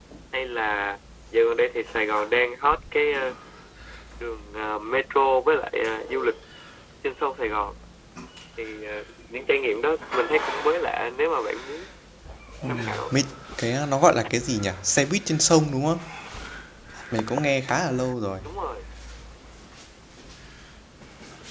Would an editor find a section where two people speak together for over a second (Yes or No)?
No